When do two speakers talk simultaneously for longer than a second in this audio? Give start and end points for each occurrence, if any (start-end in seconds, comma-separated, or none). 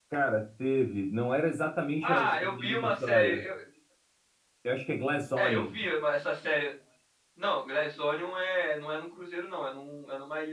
2.0-3.4